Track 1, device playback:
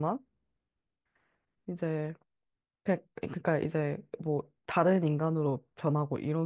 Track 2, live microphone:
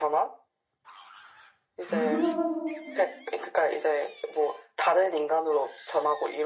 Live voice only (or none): 어,